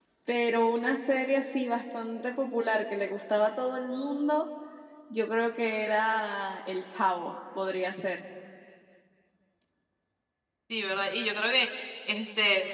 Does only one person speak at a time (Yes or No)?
Yes